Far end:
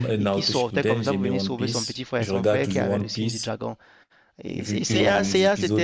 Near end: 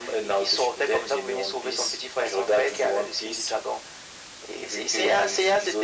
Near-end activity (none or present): none